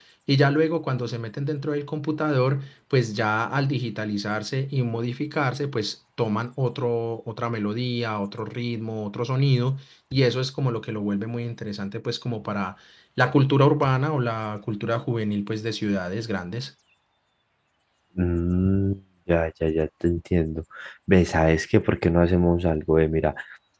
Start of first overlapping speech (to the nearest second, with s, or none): none